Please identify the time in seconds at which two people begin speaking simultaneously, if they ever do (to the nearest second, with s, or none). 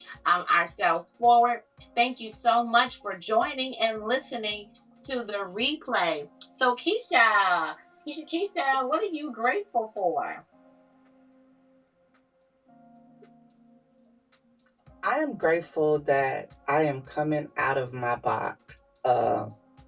none